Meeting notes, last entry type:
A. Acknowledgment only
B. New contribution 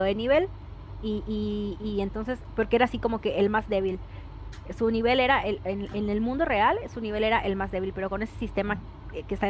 A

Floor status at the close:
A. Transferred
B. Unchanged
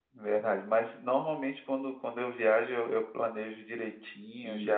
B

